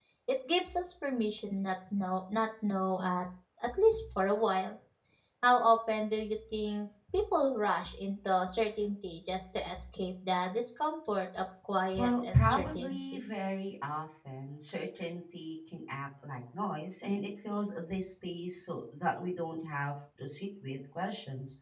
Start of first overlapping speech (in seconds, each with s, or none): 11.9 s